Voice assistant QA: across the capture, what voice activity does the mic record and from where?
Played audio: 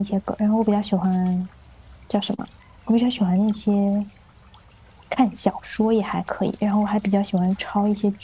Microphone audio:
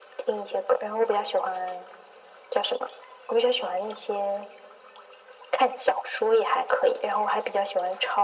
echo only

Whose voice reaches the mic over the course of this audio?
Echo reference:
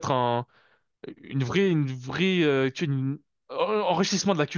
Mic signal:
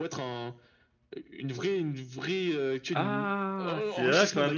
both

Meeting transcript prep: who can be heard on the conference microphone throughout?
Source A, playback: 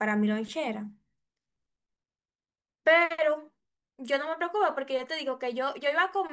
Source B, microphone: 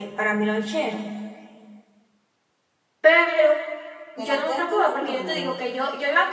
both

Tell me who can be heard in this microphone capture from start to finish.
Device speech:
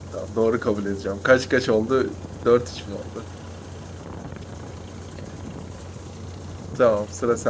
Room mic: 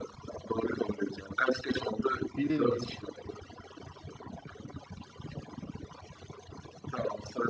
both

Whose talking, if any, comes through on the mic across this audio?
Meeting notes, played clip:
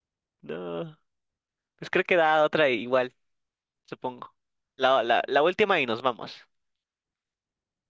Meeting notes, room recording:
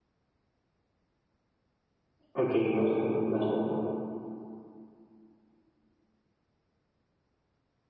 user only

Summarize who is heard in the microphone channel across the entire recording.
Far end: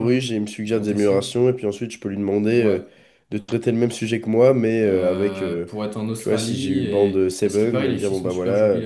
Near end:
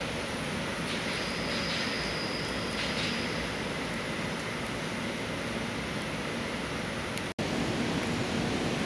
neither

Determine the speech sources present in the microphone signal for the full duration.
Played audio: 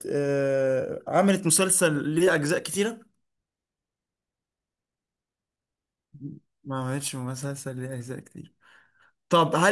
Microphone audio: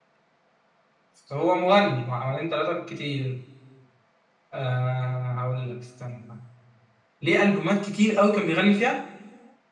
user only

